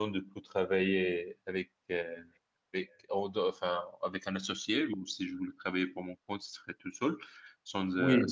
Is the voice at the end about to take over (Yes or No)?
No